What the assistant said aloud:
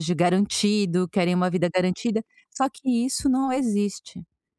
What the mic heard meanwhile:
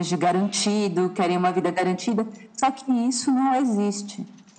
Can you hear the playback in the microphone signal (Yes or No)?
Yes